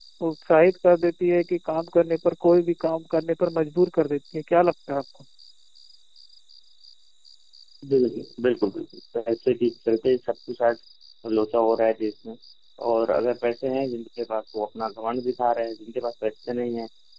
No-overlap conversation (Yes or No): Yes